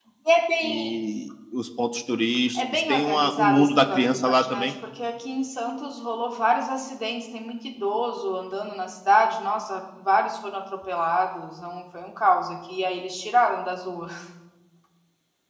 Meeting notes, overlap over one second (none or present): present